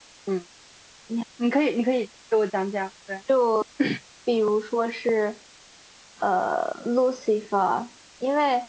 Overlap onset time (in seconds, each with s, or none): none